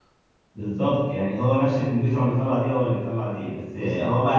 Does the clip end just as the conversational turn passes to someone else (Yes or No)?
No